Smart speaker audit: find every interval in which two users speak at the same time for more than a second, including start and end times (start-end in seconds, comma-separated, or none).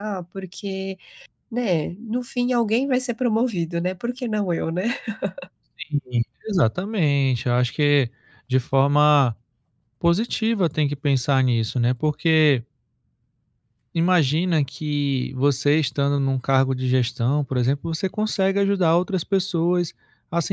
none